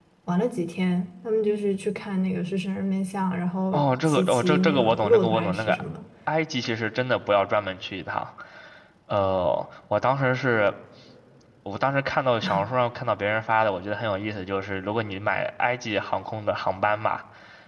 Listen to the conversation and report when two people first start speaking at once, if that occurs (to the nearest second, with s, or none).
4 s